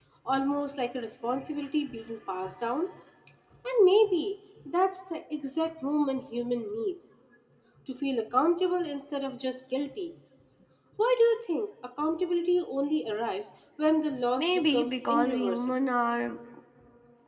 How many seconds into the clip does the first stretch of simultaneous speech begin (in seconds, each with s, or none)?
14.4 s